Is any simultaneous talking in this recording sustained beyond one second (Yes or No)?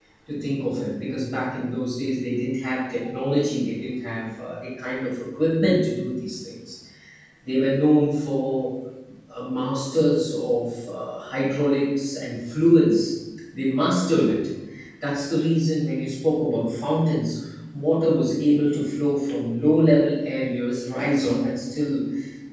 No